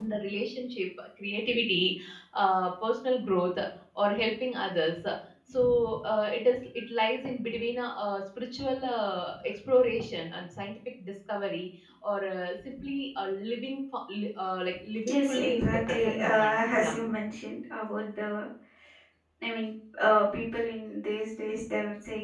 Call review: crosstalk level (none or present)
present